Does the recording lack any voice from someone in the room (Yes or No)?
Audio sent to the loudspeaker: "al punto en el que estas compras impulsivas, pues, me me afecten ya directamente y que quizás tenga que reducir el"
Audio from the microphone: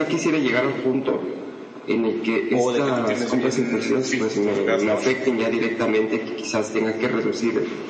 No